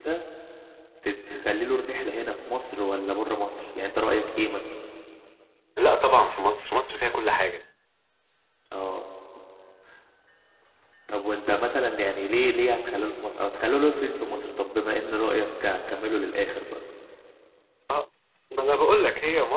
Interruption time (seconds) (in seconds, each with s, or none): none